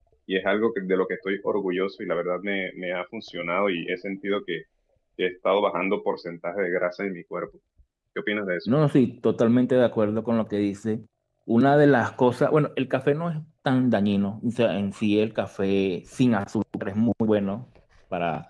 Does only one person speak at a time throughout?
Yes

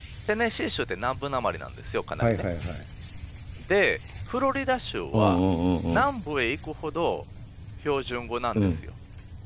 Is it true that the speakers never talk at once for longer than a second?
Yes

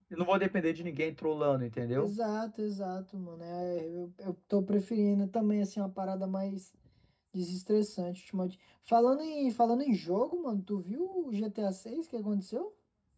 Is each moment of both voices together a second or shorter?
Yes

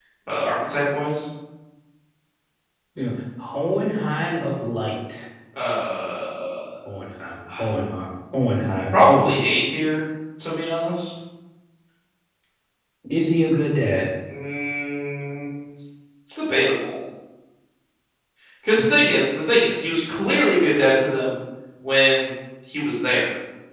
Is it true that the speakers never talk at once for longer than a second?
Yes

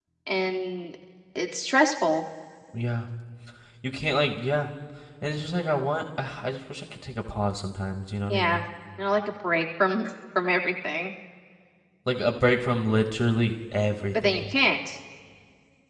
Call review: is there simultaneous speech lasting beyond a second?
No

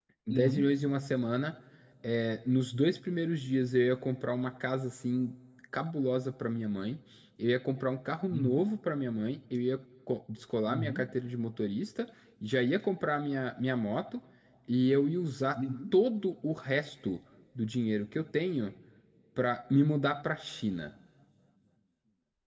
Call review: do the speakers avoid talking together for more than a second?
Yes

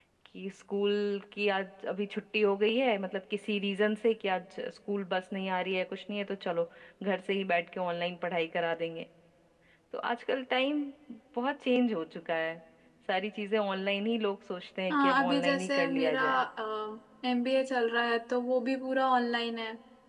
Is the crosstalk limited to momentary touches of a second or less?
No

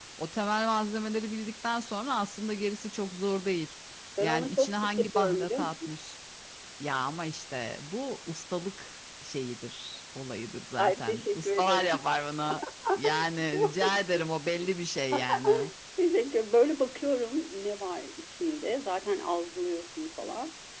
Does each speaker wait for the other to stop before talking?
No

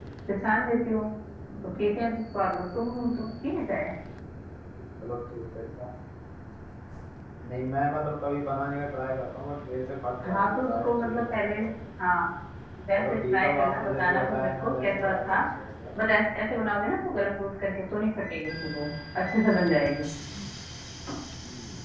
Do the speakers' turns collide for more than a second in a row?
Yes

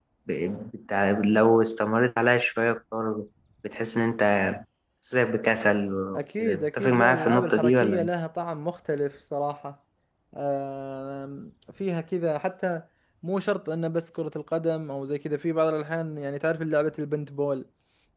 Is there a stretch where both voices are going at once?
Yes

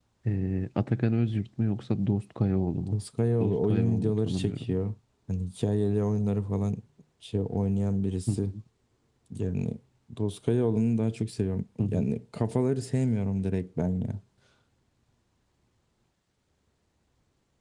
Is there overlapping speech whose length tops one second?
Yes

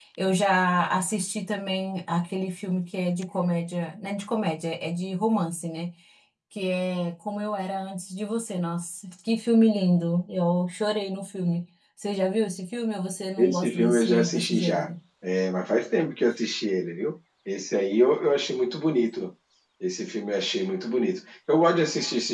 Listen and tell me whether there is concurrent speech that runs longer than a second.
Yes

